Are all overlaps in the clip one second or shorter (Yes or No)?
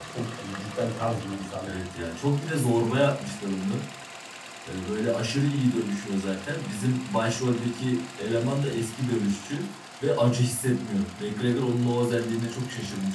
Yes